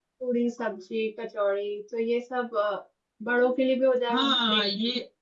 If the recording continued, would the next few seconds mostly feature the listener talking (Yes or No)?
Yes